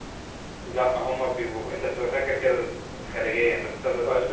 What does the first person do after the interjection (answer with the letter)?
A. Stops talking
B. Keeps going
A